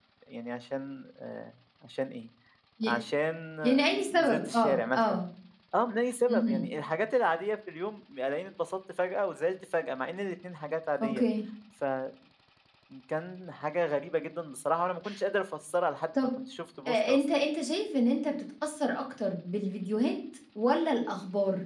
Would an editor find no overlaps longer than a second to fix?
No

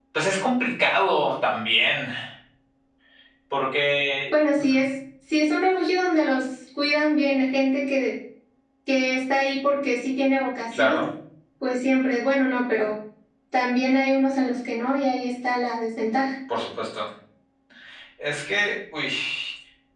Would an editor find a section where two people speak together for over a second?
No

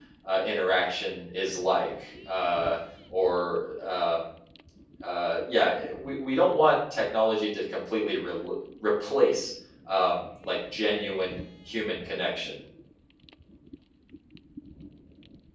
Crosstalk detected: No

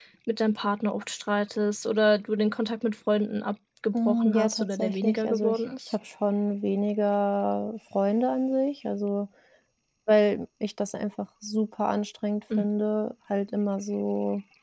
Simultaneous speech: Yes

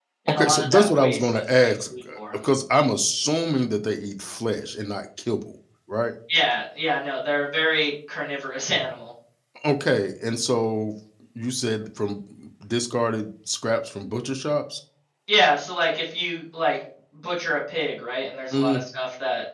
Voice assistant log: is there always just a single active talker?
No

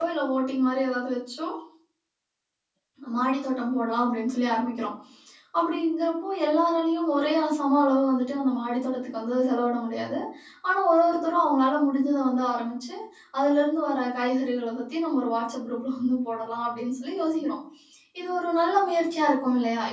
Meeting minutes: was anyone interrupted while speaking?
No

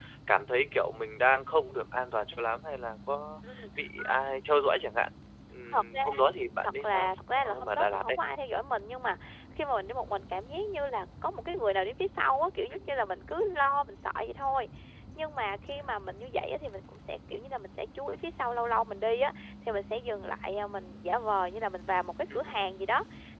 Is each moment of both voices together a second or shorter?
No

